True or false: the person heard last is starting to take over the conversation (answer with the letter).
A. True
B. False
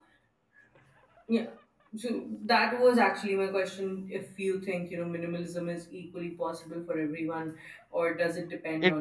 A